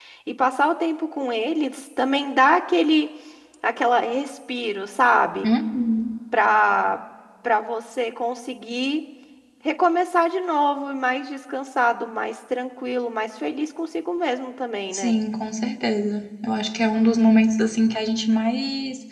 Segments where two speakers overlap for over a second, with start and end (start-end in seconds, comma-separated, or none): none